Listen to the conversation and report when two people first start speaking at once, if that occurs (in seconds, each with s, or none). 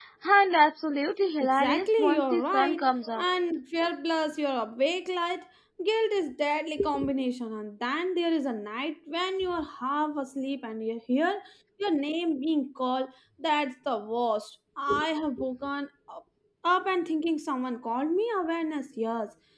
1.4 s